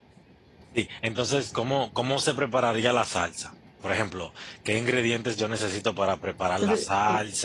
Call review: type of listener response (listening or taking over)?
listening